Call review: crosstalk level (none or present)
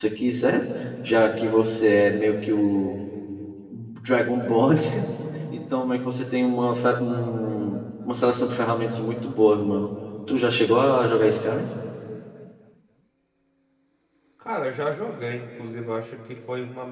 none